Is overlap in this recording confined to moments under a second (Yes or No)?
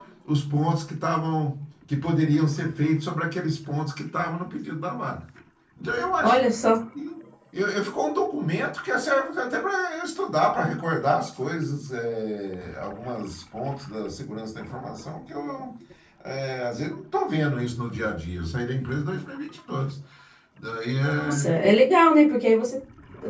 Yes